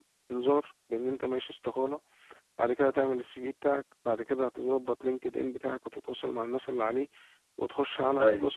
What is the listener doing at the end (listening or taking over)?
listening